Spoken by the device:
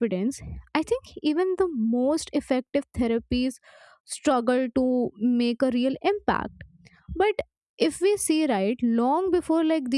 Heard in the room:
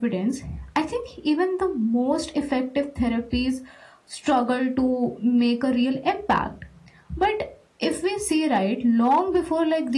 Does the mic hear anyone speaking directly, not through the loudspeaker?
No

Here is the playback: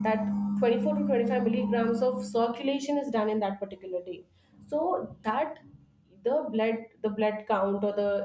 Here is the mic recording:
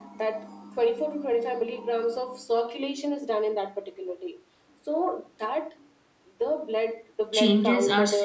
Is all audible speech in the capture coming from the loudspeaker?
No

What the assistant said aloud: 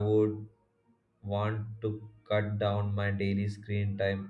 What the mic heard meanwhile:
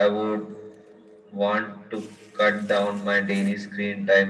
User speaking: No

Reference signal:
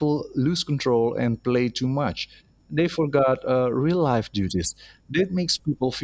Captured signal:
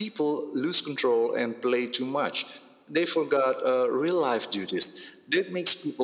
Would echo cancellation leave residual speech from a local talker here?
No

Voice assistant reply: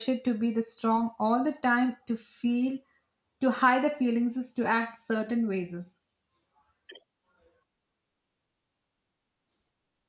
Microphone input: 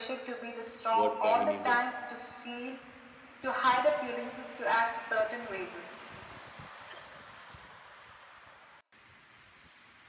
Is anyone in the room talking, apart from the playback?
Yes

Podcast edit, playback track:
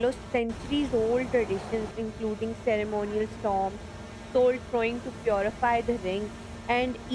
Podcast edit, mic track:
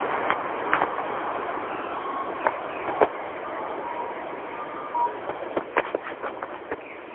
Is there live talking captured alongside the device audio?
No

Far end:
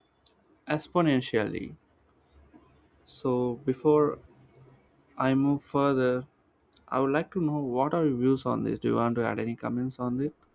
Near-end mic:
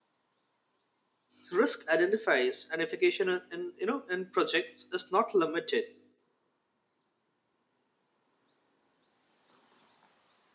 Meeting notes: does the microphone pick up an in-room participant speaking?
Yes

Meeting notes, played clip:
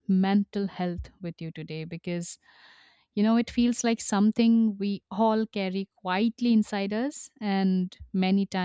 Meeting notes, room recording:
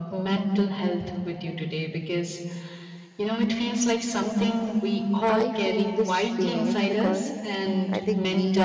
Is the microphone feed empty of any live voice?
No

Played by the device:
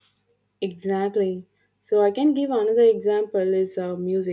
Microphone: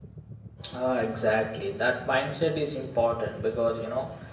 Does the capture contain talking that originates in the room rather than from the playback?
Yes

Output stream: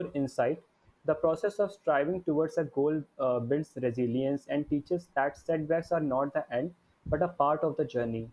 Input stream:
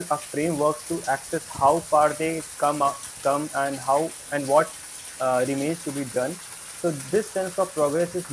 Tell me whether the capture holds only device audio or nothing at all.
No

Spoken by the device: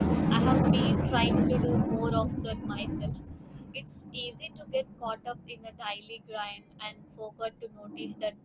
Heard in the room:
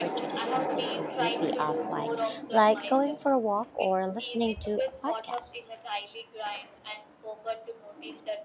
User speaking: Yes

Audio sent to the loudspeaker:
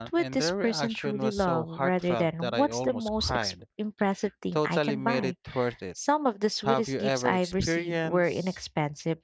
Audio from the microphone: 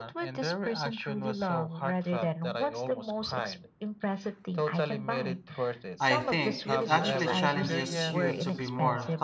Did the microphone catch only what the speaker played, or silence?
No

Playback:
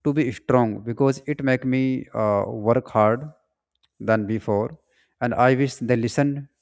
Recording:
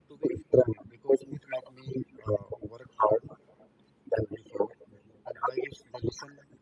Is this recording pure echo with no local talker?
Yes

